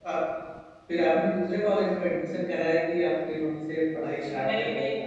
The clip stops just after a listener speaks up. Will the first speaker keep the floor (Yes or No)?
No